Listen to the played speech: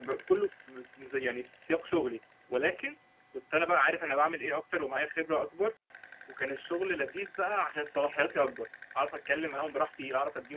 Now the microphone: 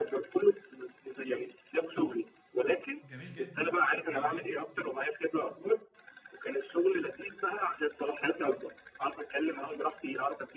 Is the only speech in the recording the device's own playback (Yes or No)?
No